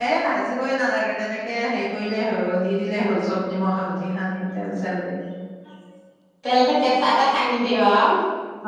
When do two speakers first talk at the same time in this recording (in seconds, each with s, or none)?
none